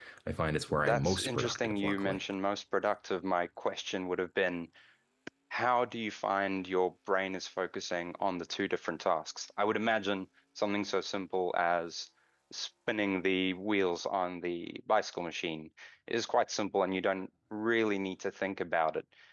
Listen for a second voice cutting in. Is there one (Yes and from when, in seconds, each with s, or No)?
Yes, from 0.8 s